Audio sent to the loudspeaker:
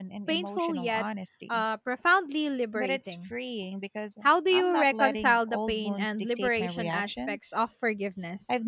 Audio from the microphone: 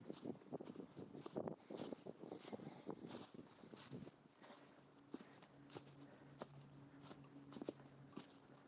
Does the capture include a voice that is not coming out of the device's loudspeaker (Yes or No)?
No